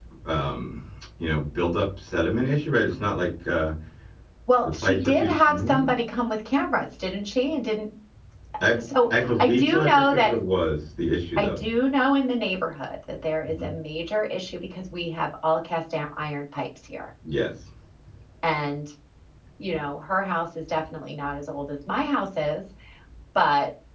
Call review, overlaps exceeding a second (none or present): present